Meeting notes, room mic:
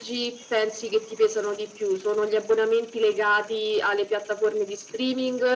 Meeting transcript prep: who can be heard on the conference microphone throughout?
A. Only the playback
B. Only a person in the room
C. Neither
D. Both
A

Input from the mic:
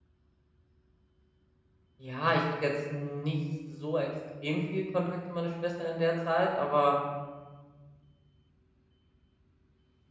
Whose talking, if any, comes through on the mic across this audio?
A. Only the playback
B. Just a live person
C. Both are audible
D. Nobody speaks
B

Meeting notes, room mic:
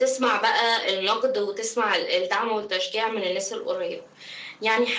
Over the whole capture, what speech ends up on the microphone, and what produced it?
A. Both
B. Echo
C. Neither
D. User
B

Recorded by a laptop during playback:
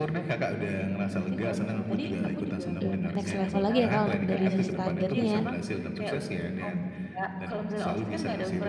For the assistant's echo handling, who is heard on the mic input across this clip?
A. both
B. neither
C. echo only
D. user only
A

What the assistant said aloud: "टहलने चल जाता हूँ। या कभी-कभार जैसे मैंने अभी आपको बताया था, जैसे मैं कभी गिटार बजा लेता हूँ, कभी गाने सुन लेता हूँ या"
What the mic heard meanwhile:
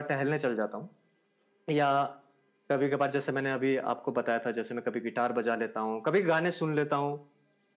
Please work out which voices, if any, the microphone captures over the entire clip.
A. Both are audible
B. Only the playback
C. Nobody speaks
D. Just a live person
B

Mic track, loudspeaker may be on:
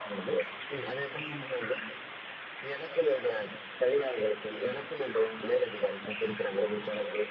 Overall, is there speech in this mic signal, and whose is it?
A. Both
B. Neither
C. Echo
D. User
C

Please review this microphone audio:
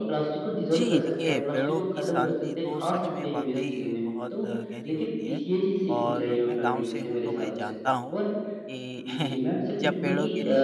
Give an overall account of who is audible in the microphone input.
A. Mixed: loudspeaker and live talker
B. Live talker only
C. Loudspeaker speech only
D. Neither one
A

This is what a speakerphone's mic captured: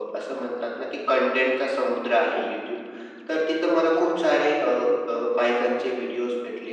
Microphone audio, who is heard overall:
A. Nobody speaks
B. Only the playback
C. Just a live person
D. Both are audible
B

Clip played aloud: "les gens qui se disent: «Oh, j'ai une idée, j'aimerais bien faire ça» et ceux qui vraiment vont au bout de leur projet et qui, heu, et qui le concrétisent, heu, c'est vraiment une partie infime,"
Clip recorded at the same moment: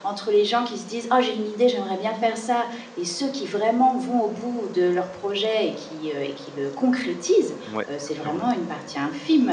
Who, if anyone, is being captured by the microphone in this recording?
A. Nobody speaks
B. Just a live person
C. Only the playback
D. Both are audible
D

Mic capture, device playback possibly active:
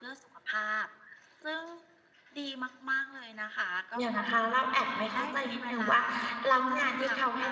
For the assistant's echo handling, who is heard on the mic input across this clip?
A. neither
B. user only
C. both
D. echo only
C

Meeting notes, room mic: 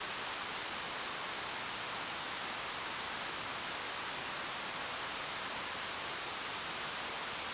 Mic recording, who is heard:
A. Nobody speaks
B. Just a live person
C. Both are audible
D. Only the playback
A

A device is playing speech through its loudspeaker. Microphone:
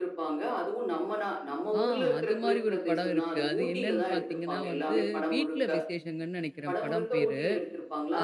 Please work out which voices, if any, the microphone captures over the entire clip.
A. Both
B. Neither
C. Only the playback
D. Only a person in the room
A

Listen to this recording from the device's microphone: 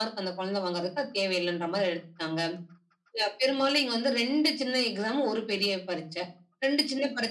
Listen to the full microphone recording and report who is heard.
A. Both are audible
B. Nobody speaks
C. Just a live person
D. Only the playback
D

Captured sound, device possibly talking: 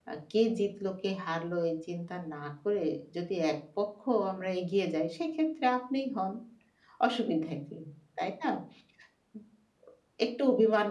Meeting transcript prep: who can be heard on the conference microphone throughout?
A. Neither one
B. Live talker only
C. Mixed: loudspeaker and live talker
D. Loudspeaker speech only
B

